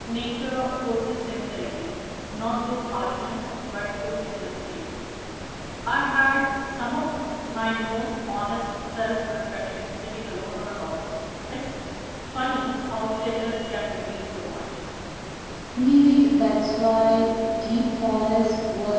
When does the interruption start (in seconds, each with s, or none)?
none